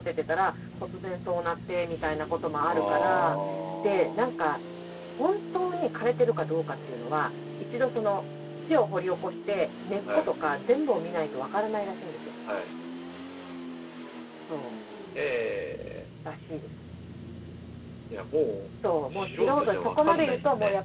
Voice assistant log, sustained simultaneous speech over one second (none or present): present